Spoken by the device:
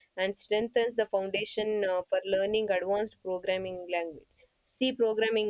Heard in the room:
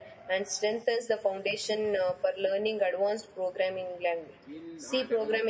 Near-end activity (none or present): present